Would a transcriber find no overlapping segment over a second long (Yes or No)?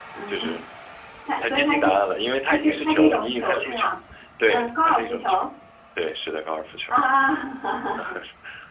No